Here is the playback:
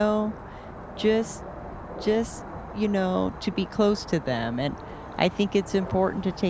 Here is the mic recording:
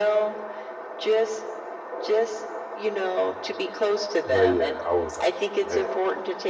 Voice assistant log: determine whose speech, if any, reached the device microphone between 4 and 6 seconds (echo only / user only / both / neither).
both